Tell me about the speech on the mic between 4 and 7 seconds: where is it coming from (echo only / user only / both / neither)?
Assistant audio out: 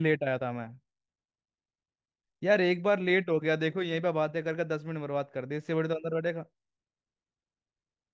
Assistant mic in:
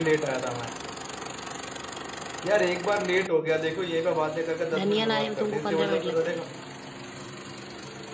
both